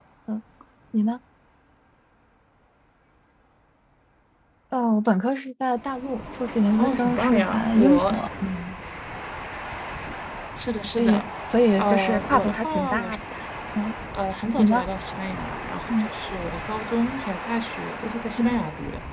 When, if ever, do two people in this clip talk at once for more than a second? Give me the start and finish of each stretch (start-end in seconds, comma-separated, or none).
6.8-8.2, 11.8-13.2